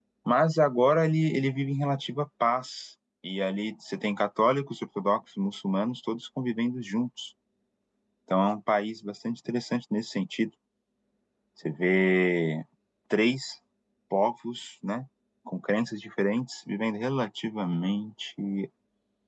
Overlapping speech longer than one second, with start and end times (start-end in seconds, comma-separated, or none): none